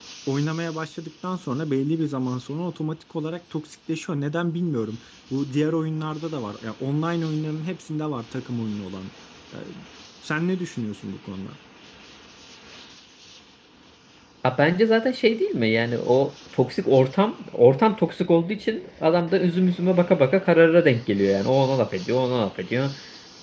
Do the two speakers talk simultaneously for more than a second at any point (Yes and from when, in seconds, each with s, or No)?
No